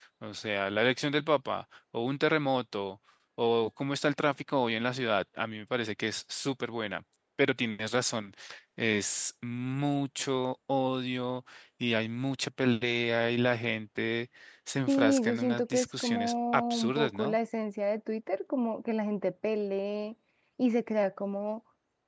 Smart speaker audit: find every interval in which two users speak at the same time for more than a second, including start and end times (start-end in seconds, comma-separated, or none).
14.9-17.4